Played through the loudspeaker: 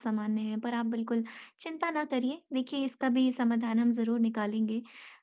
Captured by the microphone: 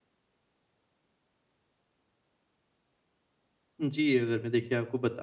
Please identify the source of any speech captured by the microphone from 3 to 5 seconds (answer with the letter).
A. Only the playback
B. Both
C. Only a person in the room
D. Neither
C